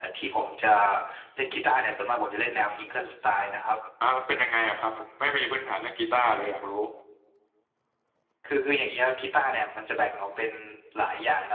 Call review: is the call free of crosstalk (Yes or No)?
Yes